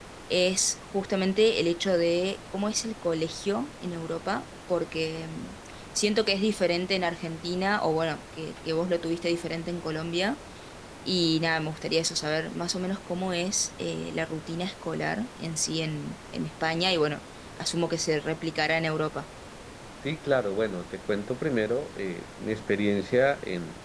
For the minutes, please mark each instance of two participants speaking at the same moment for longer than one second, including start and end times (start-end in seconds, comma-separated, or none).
none